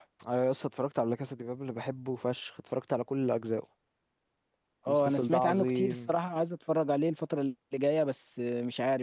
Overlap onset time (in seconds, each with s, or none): 4.9 s